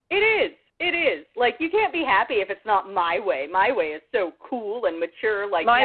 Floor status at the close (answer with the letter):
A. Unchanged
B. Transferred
B